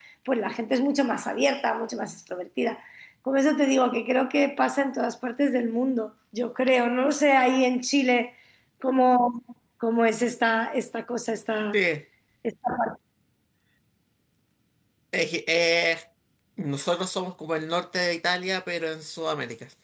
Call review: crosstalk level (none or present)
none